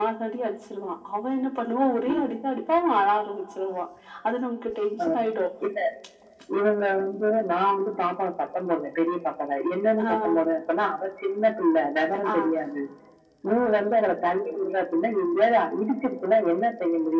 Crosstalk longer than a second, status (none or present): none